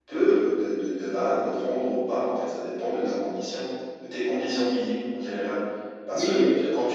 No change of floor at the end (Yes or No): Yes